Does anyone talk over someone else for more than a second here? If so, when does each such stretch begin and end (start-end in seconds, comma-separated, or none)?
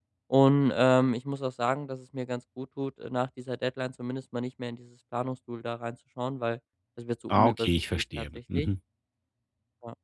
7.3-8.7